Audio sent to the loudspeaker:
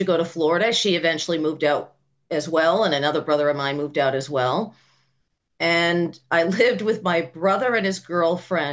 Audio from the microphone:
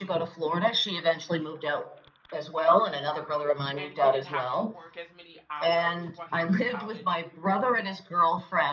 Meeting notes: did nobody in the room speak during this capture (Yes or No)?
No